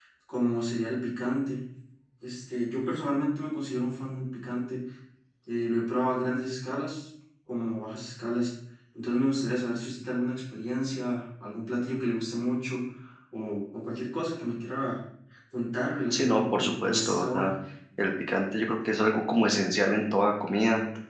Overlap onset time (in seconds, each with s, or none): 16.1 s